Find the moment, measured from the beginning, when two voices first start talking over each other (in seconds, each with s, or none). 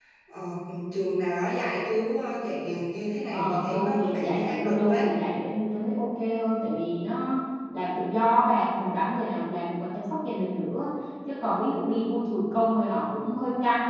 3.3 s